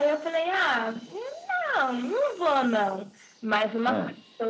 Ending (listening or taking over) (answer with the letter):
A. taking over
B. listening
B